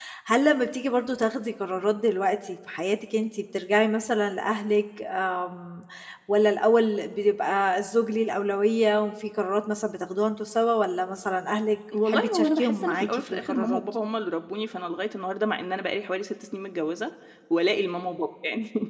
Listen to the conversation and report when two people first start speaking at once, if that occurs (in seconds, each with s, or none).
11.9 s